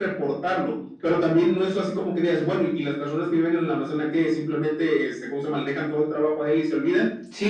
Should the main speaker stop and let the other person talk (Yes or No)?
Yes